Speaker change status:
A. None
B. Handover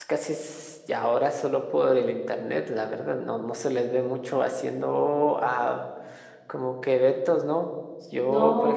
A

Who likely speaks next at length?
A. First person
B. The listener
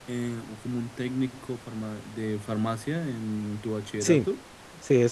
B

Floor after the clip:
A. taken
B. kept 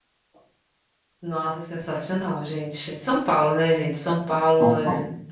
B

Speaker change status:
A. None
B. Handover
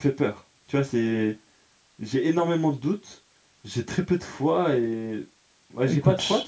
B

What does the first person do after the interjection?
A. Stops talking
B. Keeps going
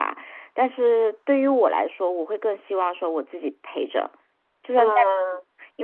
B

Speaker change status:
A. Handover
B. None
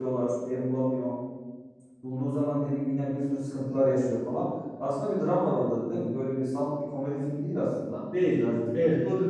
A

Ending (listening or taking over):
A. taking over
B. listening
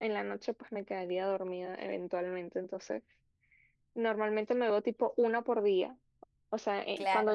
B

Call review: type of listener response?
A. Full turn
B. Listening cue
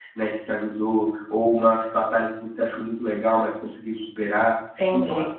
A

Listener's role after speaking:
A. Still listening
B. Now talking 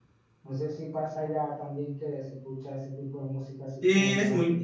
B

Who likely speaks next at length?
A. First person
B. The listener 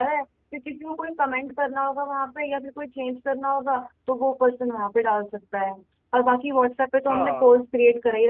A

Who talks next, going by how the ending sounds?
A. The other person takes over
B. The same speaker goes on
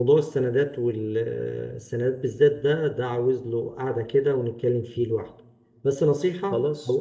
B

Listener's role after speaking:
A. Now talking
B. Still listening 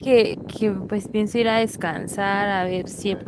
B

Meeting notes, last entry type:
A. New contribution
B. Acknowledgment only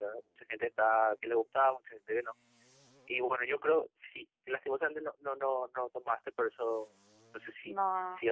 B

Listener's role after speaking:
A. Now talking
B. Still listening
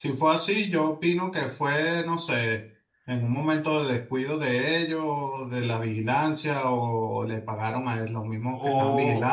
A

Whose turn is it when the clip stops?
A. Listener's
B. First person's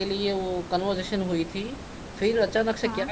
B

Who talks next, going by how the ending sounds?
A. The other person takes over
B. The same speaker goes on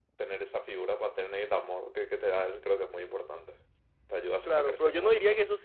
A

